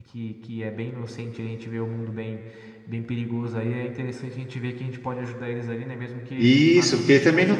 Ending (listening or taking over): taking over